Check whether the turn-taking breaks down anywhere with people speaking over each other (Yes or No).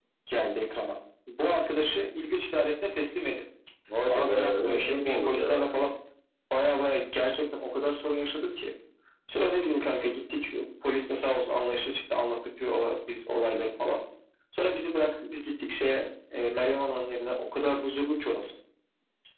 Yes